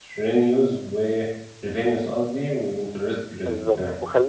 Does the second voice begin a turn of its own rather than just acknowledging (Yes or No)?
Yes